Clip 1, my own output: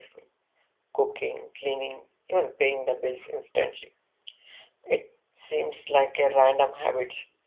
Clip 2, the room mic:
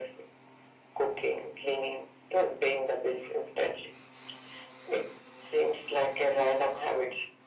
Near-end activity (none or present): none